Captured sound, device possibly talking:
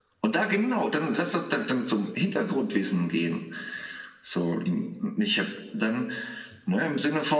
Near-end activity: none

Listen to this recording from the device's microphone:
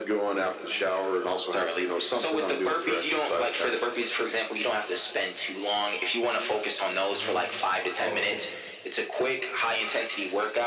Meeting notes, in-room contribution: present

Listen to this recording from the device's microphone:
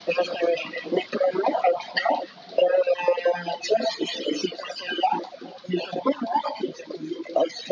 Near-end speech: none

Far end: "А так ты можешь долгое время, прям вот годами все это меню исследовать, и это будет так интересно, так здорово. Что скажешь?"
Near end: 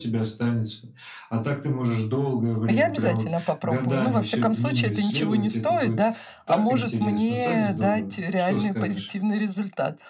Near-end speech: present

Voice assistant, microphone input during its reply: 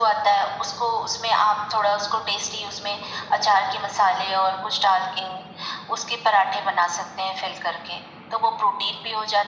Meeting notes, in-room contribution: none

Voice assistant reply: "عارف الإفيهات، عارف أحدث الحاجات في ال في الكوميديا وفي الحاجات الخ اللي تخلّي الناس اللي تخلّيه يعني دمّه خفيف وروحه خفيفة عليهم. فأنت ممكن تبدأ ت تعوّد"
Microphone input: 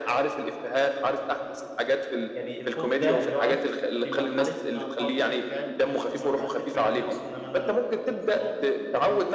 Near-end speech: present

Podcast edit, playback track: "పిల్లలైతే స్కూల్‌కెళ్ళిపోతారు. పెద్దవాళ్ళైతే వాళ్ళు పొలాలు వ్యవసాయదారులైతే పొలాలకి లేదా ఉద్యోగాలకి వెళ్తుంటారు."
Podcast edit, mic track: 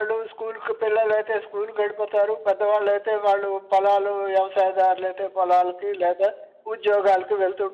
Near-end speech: none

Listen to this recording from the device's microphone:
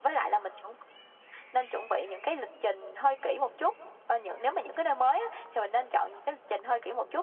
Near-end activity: none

